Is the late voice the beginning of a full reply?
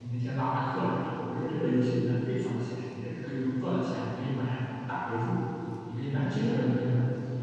No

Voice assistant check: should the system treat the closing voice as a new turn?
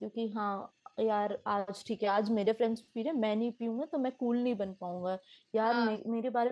No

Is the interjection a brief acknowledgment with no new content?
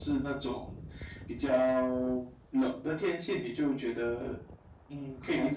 No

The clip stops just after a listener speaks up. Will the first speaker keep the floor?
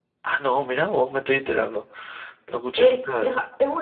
No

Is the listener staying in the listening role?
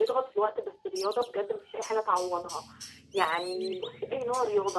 Yes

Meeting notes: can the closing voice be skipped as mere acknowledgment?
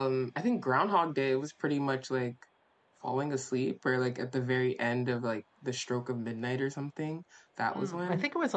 No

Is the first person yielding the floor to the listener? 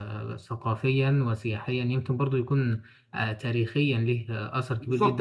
Yes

